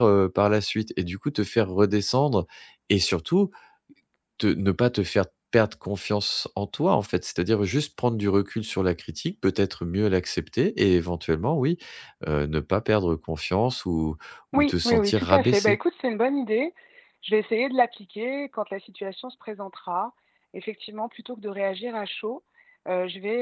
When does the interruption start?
14.6 s

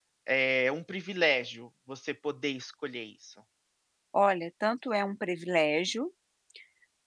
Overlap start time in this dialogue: none

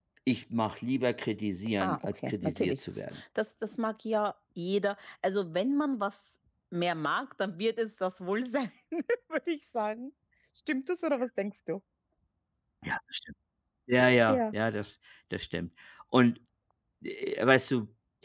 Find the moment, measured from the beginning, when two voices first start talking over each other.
1.8 s

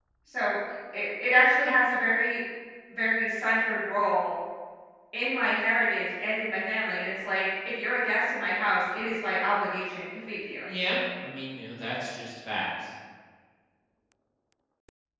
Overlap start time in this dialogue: none

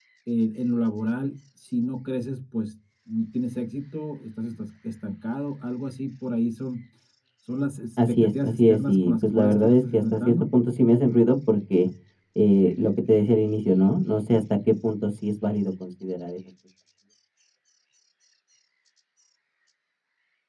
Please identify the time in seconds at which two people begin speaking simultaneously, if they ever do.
8.0 s

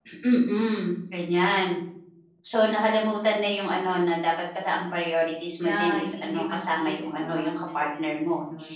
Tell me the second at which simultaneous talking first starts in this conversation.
5.6 s

